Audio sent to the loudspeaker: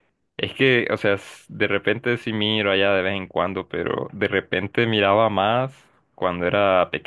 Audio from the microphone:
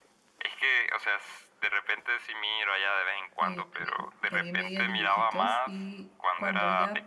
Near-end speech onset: 3 s

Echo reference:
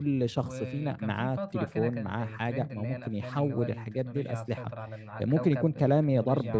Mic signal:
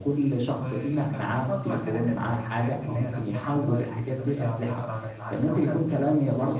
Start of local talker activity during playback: none

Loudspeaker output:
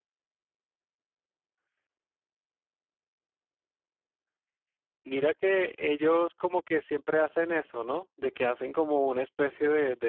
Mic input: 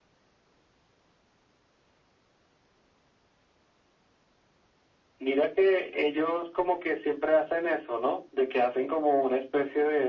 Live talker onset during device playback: none

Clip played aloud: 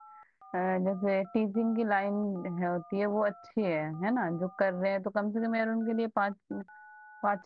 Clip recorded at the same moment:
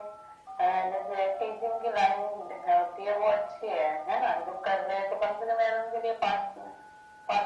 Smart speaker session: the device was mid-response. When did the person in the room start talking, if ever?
none

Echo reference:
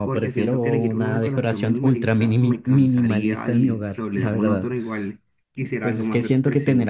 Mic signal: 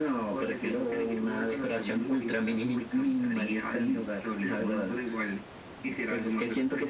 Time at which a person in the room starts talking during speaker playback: none

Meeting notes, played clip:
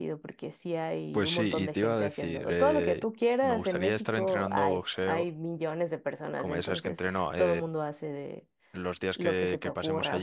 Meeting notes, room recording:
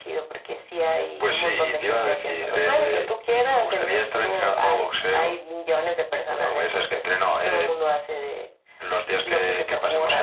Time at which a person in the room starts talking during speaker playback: none

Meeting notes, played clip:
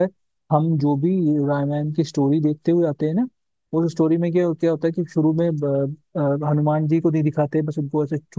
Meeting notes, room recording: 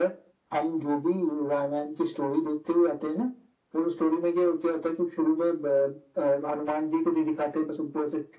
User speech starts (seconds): none

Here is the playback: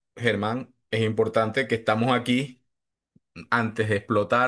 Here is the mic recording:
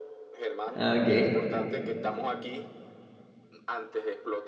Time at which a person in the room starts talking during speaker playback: 1 s

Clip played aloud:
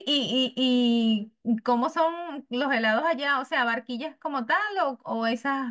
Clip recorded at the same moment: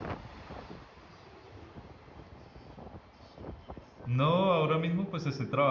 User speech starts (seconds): 4 s

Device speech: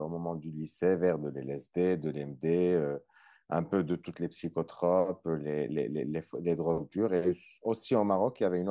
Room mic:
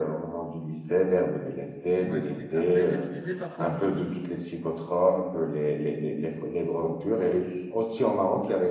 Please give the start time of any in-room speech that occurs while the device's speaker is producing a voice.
2 s

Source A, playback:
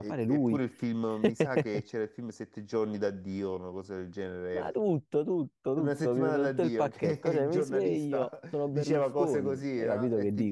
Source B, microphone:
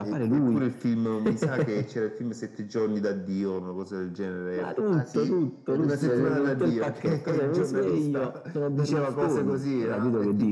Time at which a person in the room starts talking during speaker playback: 5 s

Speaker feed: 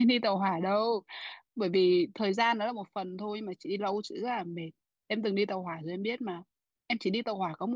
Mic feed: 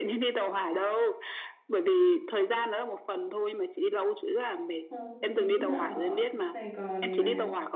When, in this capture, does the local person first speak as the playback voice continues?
5 s

